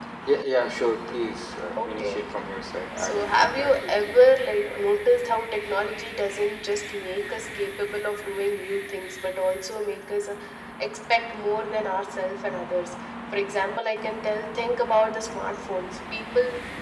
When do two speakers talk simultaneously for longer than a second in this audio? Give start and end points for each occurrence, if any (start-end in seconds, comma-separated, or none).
3.0-4.2